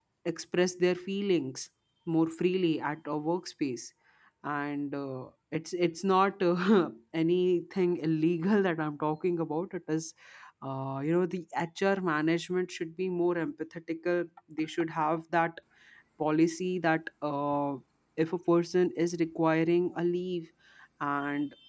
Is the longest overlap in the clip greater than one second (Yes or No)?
No